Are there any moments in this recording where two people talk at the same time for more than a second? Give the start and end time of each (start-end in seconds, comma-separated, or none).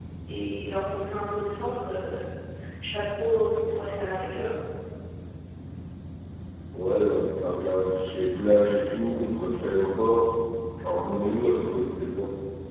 none